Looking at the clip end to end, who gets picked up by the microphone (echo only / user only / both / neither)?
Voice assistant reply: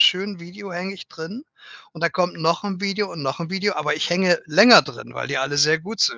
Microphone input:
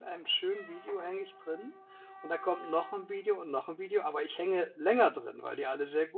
echo only